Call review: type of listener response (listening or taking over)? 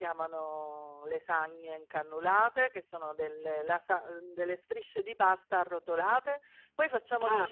listening